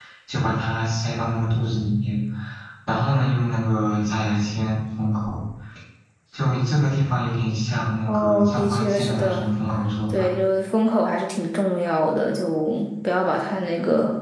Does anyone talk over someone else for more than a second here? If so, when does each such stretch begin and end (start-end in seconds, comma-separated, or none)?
8.1-9.5